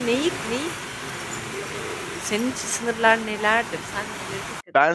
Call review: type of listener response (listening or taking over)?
taking over